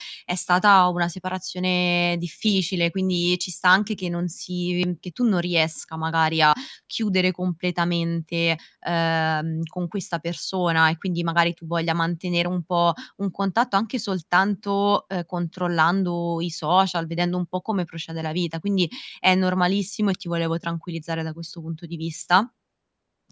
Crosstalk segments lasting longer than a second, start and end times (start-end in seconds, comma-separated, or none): none